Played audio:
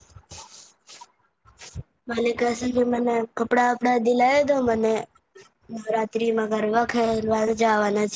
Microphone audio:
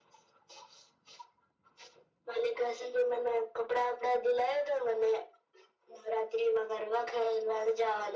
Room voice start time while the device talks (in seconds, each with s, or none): none